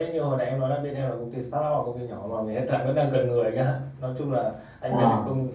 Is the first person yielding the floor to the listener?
No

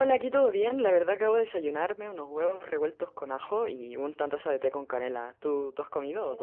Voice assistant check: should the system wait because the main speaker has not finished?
No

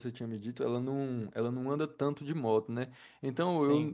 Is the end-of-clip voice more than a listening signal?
No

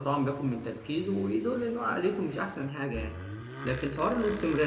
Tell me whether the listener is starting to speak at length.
No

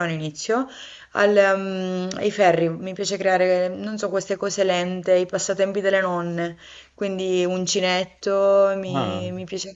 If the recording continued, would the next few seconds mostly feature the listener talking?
No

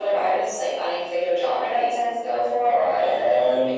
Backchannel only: No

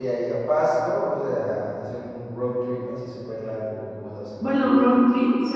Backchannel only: No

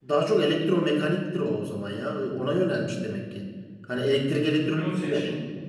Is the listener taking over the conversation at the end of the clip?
Yes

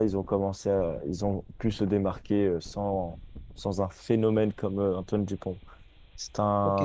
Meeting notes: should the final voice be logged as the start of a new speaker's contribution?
Yes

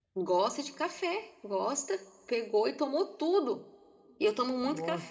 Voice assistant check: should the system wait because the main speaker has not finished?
Yes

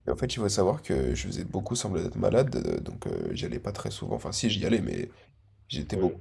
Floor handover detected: No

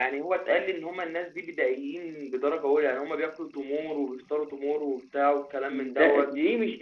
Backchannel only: No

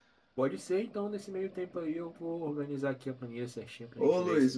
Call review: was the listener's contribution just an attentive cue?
No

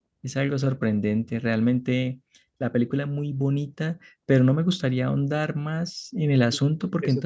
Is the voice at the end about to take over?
Yes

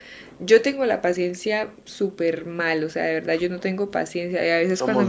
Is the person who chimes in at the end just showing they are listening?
Yes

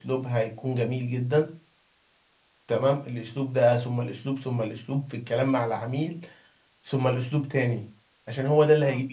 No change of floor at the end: Yes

